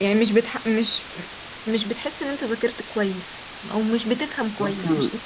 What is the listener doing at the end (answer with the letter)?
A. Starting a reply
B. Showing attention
A